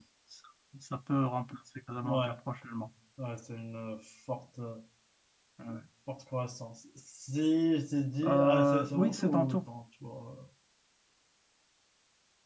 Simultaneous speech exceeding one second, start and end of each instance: 8.2-9.6

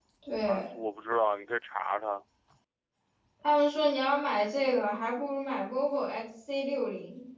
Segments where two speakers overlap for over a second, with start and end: none

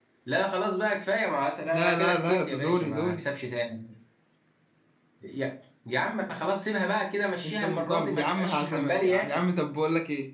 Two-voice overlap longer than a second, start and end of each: 1.6-3.2, 7.4-9.4

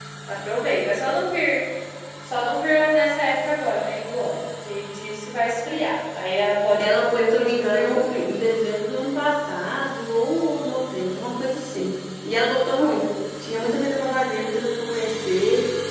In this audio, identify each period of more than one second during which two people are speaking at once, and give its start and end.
6.8-8.2

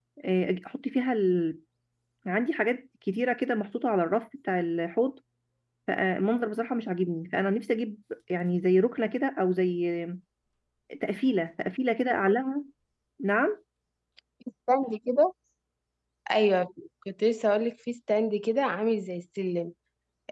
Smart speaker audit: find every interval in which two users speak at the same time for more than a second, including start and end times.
none

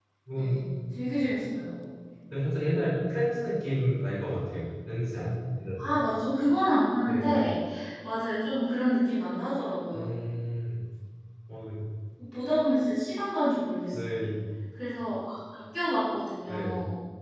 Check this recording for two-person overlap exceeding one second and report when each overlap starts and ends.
none

